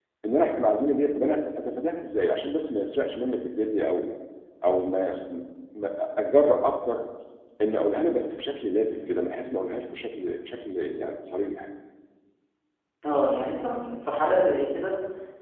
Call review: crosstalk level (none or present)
none